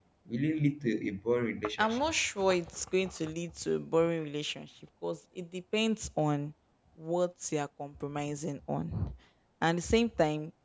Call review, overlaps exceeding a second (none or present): none